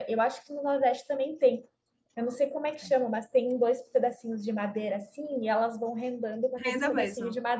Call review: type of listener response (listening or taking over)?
listening